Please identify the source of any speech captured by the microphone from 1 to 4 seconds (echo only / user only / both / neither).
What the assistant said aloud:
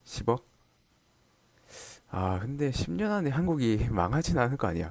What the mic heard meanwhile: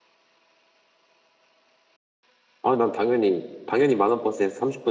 user only